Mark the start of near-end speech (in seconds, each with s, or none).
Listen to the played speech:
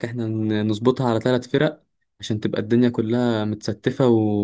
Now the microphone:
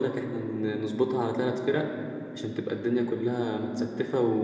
none